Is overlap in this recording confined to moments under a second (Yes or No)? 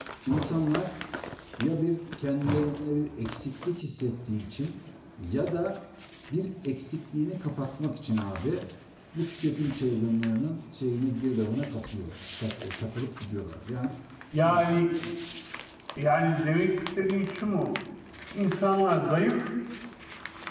Yes